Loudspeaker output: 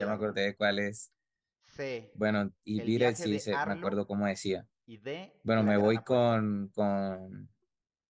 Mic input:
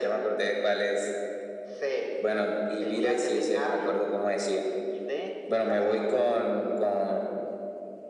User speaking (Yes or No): No